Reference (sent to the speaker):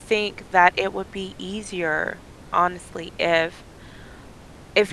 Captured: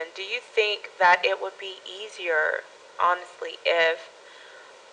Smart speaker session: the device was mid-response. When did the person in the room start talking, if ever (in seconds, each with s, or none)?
none